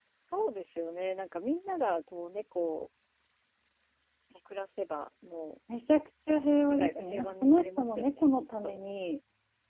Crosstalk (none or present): present